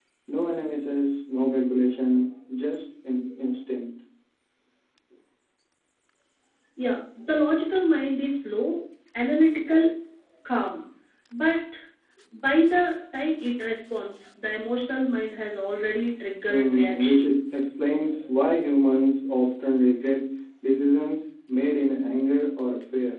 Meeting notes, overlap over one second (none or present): present